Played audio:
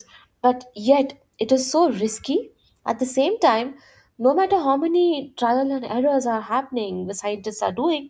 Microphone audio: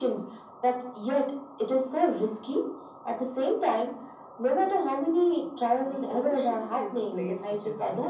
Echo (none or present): present